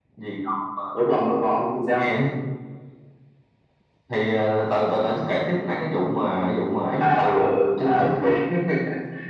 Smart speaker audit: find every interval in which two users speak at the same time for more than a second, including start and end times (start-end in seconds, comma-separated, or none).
7.0-8.2